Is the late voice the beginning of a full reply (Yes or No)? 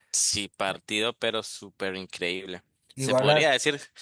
No